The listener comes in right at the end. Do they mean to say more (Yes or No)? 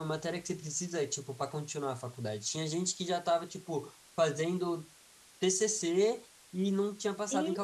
No